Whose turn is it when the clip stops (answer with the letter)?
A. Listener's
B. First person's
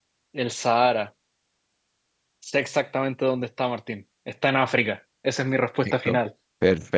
A